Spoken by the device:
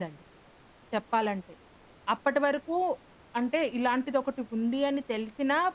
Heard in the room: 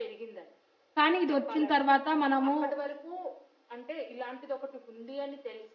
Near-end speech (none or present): present